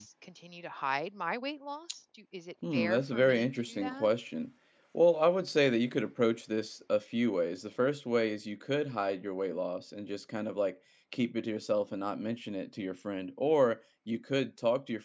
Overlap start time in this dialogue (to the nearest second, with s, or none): 3 s